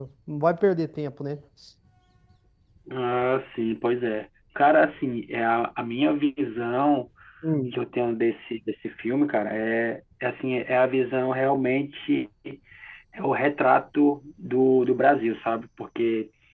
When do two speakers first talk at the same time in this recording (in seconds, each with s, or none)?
none